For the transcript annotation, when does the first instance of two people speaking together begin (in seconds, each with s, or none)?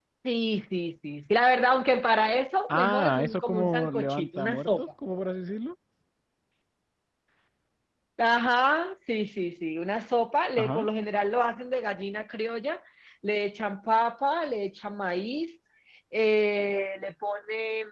2.7 s